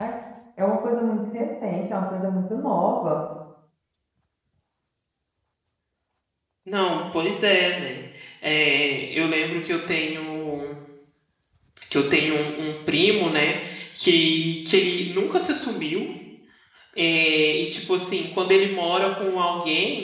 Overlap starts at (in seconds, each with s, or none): none